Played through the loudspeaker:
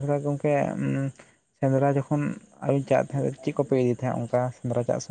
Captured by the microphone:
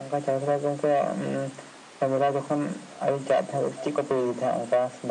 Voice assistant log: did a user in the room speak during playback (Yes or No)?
No